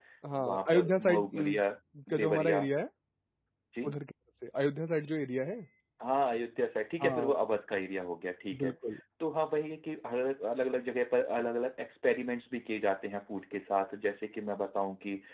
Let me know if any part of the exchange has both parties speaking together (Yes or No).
Yes